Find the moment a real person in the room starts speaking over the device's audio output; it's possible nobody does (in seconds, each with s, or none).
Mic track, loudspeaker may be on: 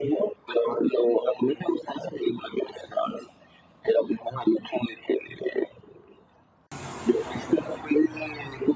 none